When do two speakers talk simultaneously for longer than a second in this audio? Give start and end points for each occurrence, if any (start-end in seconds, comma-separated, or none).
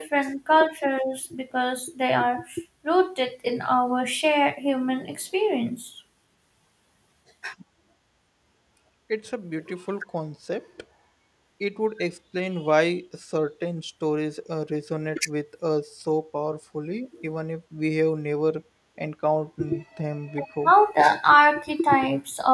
none